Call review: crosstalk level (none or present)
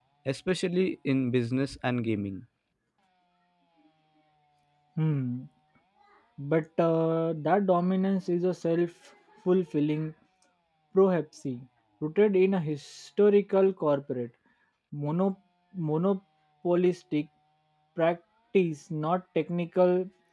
none